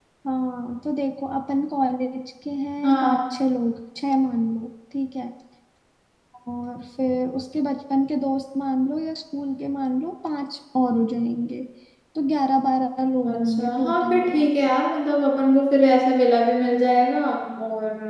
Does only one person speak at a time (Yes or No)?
No